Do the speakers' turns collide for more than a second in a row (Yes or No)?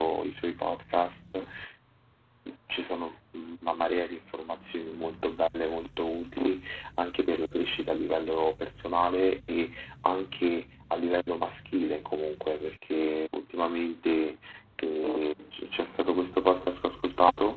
No